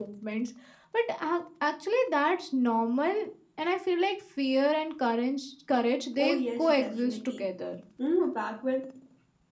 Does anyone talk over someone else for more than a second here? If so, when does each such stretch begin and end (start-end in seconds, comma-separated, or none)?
6.2-7.5